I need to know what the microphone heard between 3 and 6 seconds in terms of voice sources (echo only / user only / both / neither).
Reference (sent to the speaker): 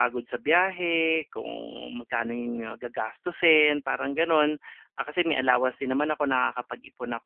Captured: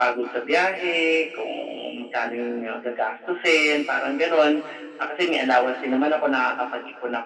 echo only